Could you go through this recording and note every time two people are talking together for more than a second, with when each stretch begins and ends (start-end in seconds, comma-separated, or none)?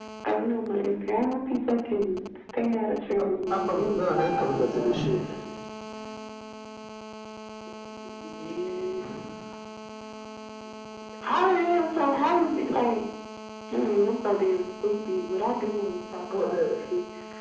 3.2-4.7